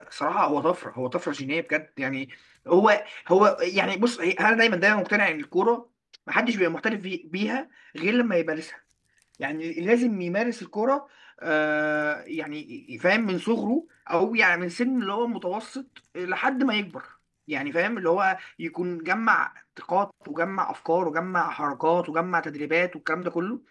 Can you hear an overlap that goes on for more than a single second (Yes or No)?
No